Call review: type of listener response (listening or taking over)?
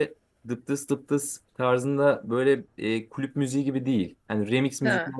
listening